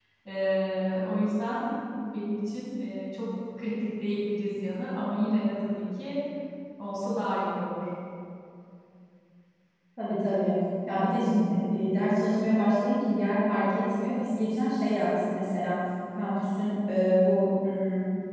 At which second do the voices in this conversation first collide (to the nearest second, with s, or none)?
none